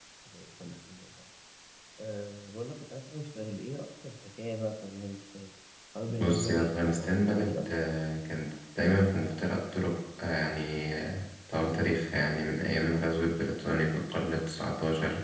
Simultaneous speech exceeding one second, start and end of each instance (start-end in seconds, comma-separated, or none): 6.2-7.7